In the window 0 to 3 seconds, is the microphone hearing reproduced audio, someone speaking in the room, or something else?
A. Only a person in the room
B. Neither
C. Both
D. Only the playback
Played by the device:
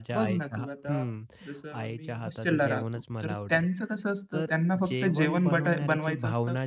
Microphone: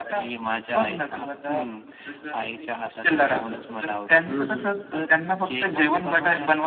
D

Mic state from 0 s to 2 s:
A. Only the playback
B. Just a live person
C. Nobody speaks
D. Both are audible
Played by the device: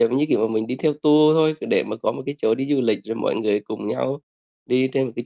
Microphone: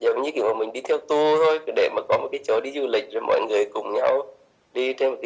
A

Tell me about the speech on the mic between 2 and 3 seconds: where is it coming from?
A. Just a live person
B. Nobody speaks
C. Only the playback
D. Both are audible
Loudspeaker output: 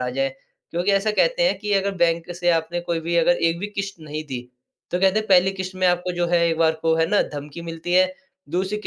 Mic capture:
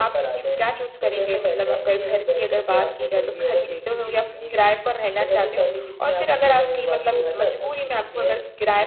D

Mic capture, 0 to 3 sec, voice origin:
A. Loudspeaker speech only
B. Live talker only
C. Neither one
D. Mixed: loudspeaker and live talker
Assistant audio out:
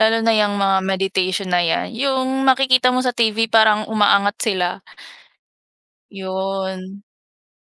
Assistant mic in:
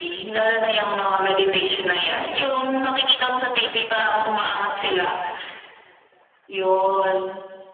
A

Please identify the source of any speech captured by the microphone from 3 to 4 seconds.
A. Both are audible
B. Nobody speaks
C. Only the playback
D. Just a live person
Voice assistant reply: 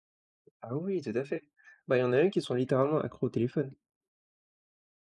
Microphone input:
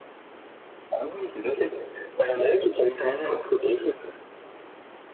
C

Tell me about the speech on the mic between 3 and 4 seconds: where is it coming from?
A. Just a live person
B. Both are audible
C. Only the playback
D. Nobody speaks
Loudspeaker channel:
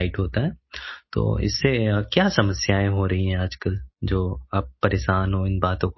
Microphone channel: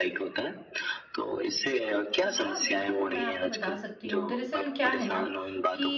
B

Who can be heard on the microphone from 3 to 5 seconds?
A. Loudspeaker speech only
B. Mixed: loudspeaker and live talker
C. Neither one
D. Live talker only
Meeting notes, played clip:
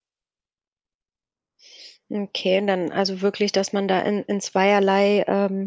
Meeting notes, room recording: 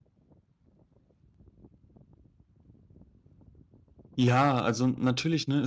D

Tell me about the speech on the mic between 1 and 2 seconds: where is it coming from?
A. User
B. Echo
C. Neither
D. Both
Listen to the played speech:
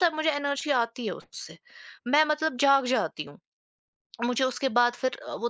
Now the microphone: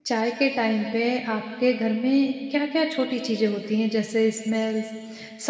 A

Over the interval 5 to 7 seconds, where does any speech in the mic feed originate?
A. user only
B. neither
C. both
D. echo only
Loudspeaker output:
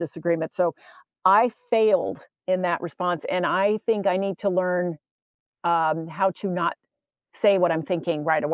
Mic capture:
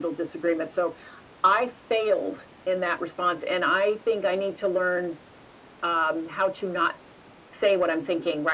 D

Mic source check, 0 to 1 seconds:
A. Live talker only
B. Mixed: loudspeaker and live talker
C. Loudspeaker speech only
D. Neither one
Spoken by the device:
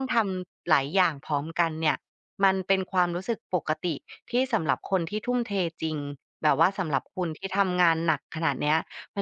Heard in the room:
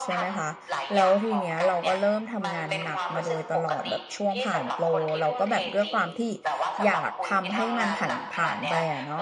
B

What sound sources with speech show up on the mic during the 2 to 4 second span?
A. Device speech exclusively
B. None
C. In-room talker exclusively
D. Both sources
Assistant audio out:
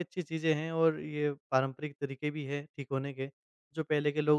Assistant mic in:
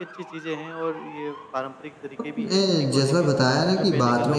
D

